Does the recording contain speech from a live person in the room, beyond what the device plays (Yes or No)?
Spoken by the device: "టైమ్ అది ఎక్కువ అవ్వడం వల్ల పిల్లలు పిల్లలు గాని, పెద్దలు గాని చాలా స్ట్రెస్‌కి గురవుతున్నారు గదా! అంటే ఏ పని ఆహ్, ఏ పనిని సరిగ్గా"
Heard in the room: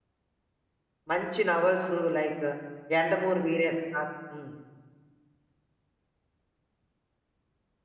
Yes